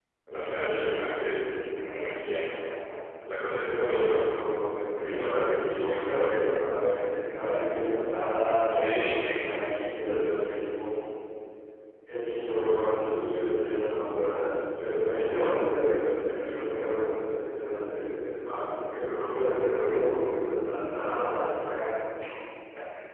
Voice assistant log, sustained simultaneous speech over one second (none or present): present